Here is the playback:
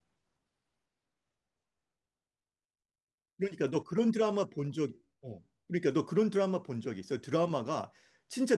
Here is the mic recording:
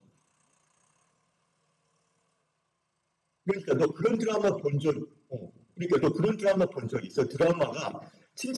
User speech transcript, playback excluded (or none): none